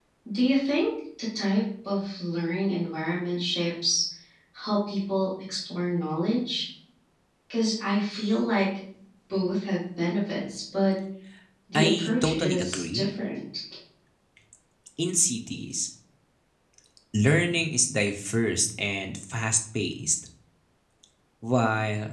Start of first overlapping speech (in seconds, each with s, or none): 11.8 s